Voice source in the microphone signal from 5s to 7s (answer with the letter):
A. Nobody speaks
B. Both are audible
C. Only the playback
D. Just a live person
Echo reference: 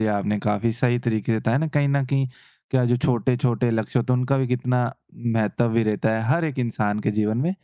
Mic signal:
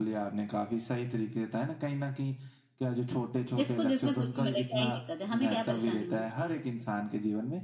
B